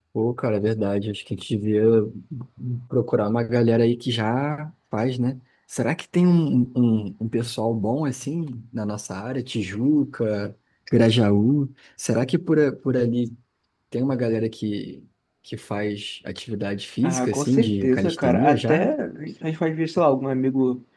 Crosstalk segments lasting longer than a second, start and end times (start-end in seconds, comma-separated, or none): 17.0-18.9